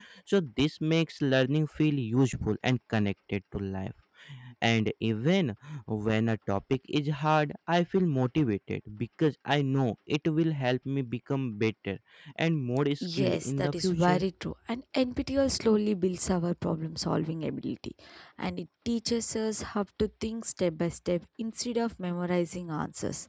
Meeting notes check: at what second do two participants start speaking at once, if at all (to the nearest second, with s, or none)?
13 s